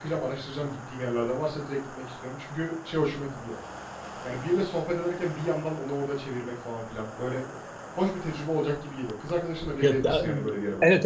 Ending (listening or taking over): taking over